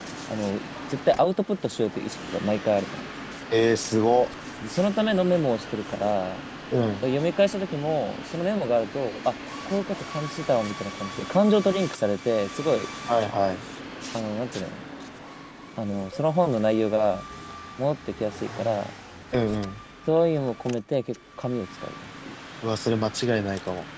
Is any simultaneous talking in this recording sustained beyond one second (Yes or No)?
No